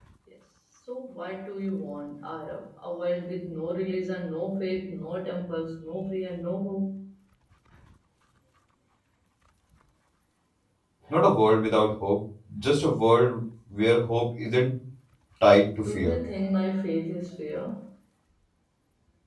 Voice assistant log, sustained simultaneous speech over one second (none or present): none